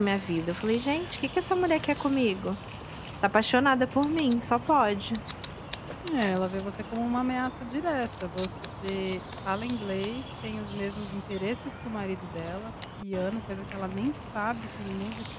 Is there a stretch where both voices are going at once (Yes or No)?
No